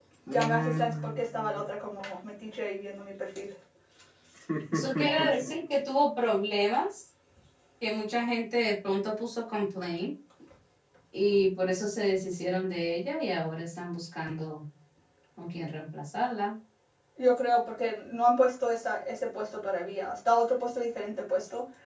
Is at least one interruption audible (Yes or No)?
Yes